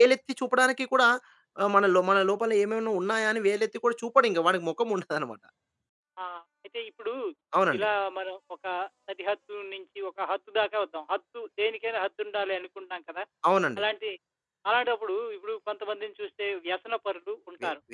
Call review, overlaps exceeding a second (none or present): none